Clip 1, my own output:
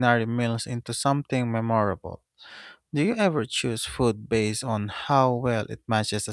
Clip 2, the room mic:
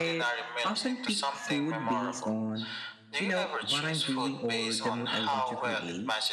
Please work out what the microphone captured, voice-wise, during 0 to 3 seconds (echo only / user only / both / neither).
both